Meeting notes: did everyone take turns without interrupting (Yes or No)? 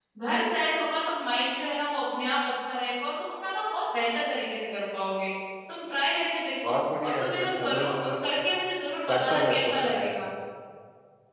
No